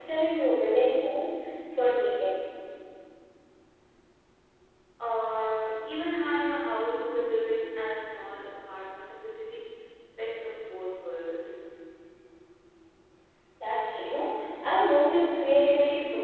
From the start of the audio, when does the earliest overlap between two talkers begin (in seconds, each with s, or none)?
none